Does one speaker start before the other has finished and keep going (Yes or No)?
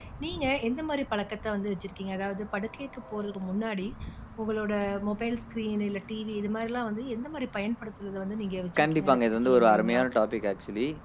Yes